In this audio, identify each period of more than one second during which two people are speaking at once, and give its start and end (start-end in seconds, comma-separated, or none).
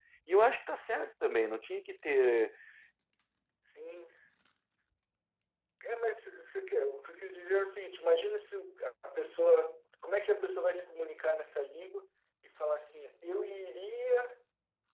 none